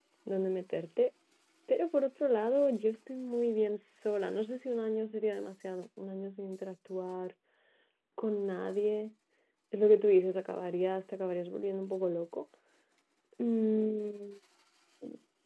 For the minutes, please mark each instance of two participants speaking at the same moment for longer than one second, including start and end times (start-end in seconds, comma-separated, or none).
none